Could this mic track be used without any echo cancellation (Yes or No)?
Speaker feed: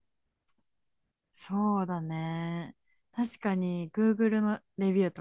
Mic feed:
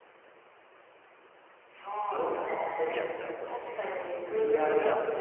No